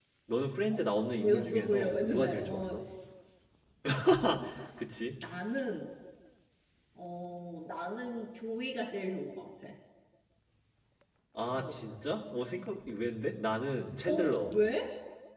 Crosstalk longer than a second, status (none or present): present